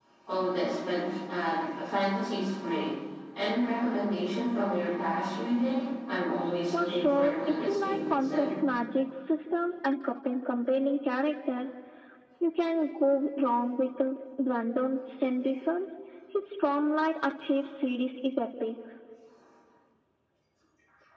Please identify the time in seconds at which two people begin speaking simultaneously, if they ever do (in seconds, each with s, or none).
6.7 s